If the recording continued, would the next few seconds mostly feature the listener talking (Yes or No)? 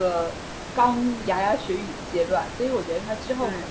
No